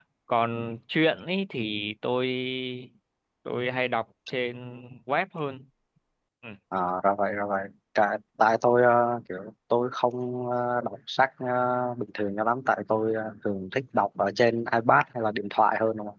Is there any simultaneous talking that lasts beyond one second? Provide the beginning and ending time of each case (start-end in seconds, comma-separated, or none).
none